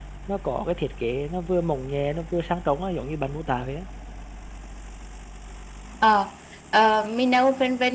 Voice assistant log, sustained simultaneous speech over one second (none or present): none